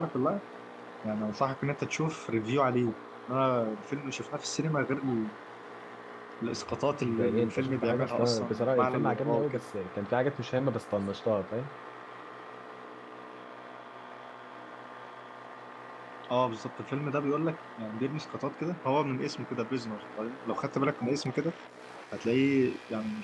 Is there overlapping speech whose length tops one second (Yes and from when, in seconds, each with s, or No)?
Yes, from 7.0 s